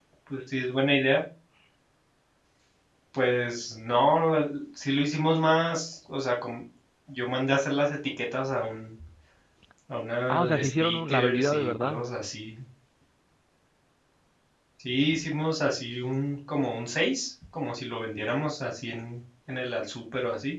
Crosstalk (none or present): present